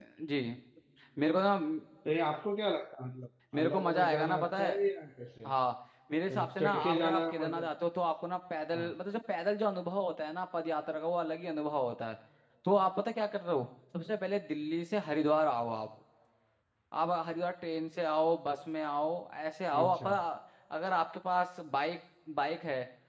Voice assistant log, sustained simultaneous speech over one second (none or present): present